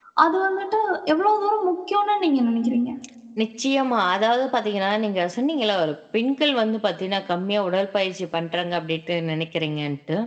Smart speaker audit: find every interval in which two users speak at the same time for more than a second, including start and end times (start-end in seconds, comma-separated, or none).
none